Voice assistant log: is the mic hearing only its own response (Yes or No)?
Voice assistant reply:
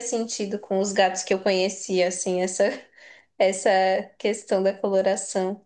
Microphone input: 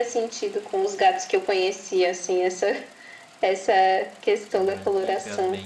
No